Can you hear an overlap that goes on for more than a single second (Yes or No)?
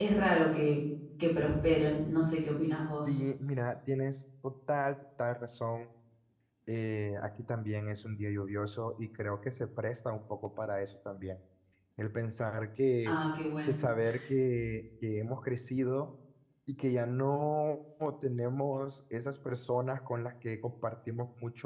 No